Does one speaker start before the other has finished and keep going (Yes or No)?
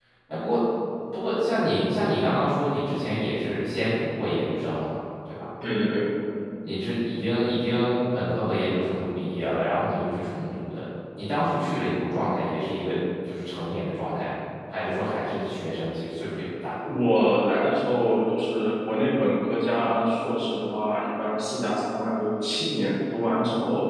No